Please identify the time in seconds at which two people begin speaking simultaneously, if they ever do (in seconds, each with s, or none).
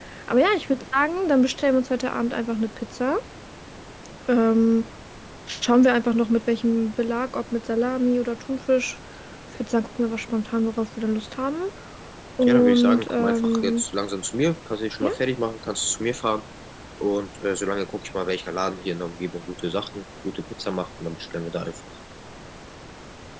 12.4 s